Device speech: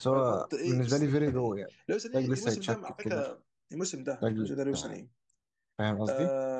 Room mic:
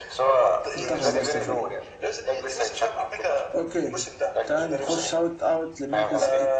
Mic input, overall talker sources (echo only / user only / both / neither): both